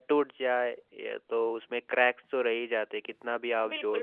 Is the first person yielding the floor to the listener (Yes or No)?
Yes